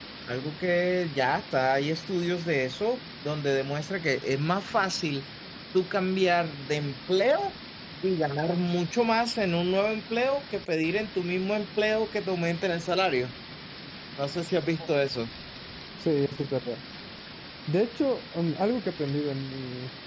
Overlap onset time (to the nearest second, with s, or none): none